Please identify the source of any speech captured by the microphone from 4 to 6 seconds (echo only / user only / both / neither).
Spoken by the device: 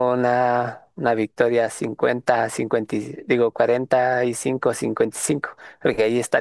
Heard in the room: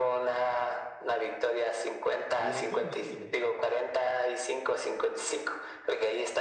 echo only